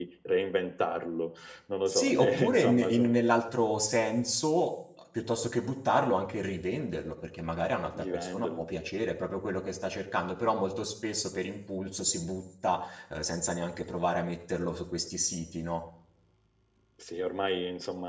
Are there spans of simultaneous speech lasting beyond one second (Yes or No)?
Yes